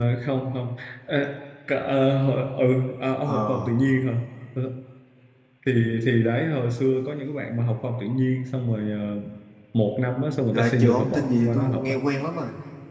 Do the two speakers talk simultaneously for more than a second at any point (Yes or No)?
Yes